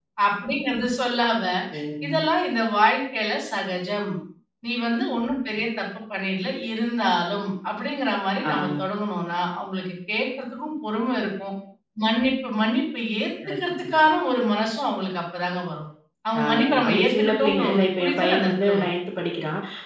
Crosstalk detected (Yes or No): Yes